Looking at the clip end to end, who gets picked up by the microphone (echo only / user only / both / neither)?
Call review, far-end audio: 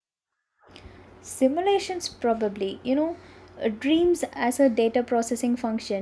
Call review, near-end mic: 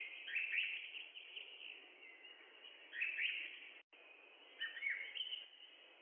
neither